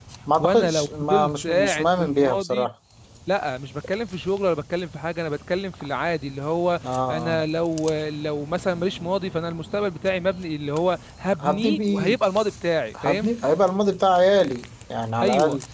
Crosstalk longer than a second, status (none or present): present